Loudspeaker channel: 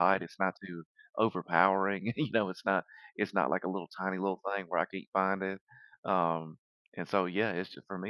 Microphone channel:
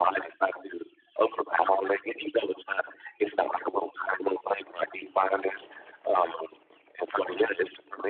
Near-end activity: none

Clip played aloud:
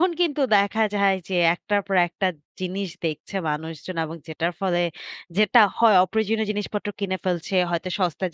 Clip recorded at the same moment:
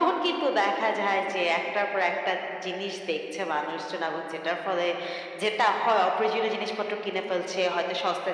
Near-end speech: none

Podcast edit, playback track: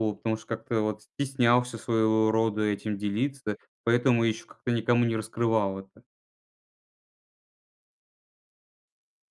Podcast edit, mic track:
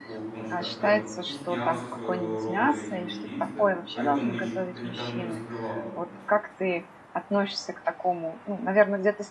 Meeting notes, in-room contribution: present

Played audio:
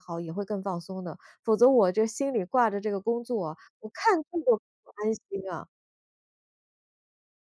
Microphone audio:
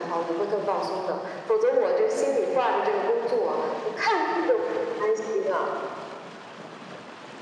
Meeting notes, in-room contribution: none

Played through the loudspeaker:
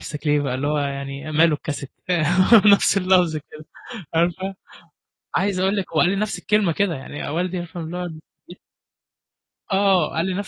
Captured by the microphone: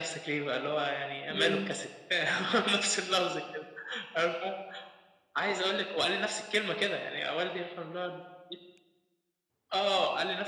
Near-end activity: present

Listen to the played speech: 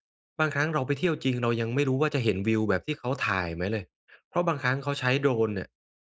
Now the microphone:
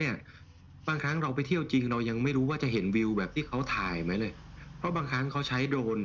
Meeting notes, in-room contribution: none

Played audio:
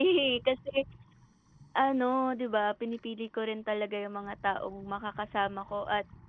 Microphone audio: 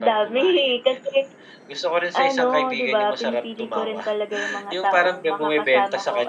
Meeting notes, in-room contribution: present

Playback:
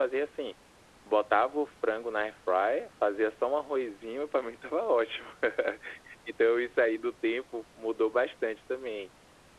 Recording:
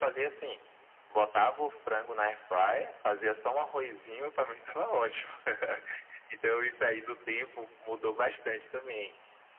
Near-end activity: none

